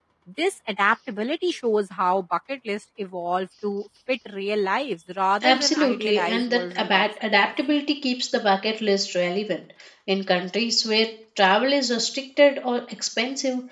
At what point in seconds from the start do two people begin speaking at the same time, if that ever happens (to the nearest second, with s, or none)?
5 s